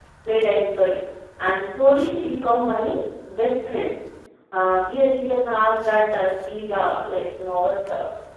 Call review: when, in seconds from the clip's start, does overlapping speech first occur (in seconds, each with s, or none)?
none